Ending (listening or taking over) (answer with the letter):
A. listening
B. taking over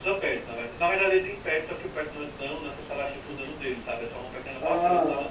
B